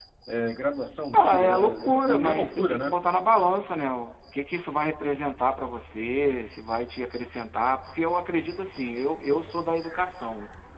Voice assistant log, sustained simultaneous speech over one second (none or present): present